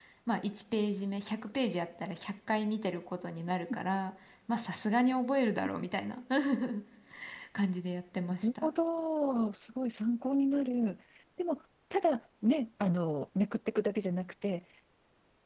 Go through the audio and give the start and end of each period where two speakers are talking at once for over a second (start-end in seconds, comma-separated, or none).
none